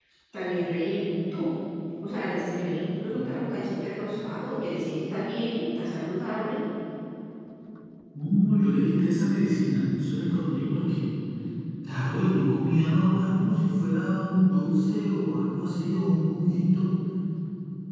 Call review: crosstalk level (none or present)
none